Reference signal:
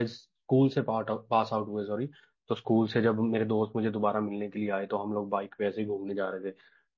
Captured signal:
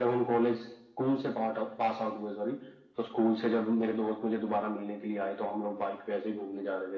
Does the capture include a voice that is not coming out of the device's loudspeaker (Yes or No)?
No